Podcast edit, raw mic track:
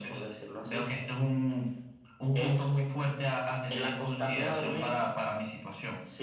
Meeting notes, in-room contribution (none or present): none